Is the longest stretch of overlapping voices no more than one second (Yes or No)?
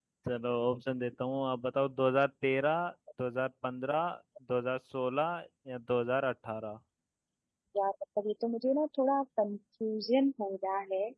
Yes